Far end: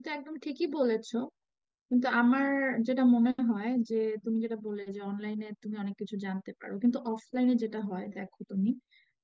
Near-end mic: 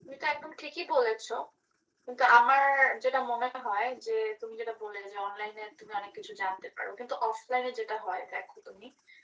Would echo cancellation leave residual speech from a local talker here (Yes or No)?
No